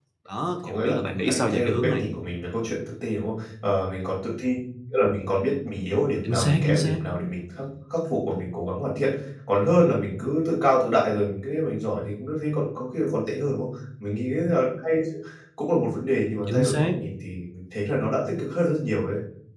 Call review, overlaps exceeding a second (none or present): present